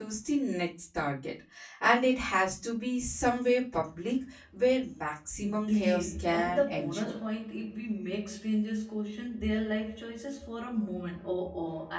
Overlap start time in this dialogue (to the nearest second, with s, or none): 5 s